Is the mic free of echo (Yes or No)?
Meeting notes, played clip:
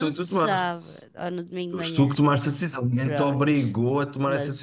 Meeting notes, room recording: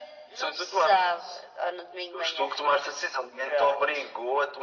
No